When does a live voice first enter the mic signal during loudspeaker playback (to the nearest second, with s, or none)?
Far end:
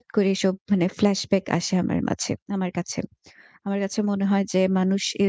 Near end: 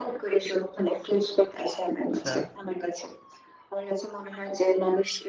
2 s